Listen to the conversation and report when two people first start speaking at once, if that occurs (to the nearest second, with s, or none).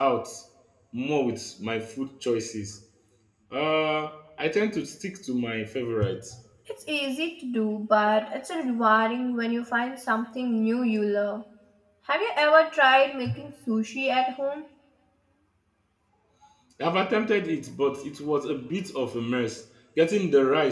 none